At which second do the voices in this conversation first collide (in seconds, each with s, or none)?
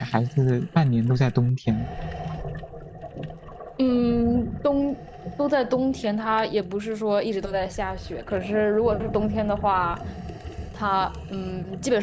none